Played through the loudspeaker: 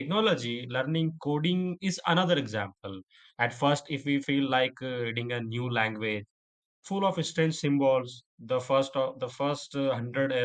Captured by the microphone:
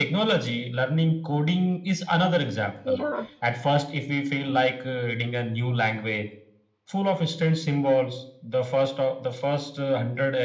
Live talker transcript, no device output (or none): Yeah.